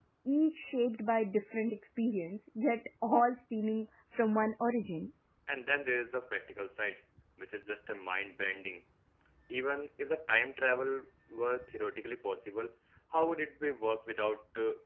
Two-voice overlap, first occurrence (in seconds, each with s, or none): none